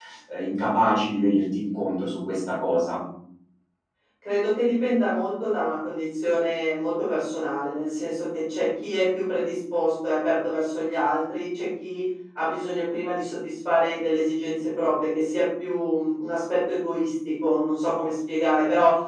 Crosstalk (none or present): none